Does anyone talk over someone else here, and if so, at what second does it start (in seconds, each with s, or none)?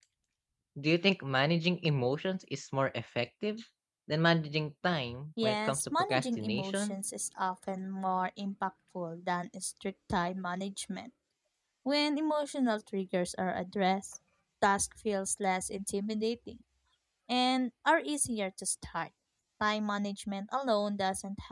5.4 s